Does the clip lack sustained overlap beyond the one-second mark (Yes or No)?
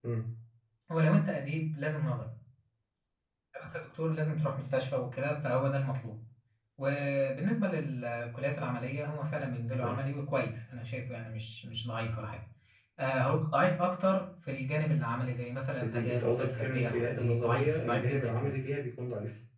No